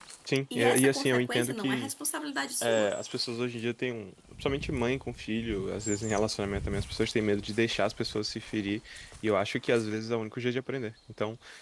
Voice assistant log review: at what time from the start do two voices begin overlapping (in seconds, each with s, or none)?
0.6 s